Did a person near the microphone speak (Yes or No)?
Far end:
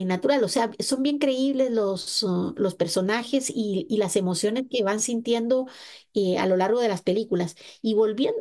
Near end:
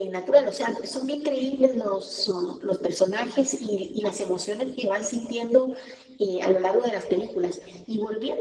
No